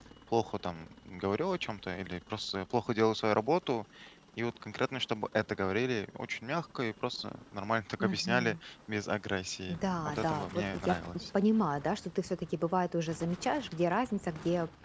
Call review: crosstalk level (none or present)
present